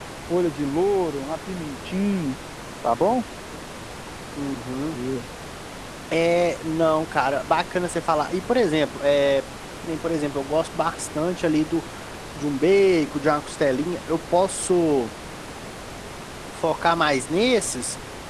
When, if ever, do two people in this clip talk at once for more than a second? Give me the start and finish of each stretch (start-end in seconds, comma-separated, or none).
none